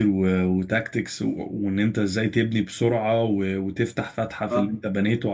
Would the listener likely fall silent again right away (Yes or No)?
Yes